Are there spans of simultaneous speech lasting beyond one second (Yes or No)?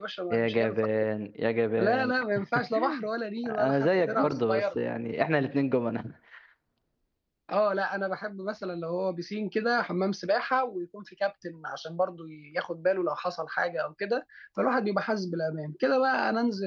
Yes